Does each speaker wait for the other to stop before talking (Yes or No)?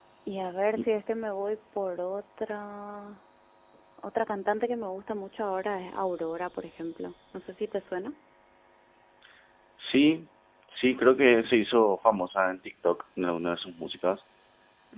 Yes